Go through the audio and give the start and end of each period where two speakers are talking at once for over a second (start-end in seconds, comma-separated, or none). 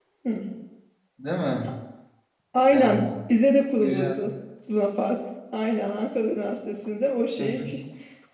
none